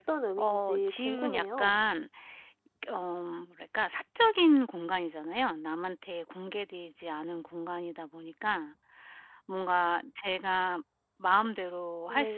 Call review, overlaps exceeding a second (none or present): present